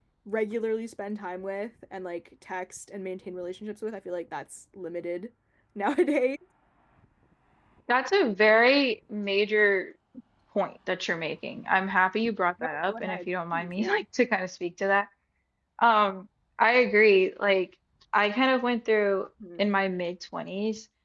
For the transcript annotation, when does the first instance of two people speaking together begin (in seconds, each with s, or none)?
12.6 s